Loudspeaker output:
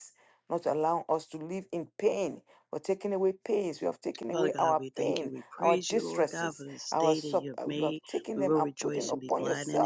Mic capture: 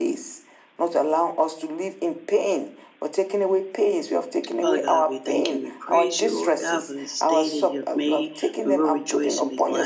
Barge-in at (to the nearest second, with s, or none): none